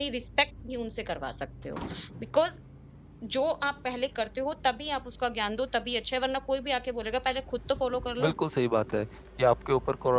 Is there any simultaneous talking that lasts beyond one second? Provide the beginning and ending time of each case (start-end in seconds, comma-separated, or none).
none